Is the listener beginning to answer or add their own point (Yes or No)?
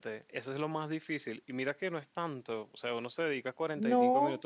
No